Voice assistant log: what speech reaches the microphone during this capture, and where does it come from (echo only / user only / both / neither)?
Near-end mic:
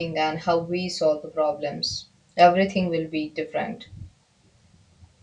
user only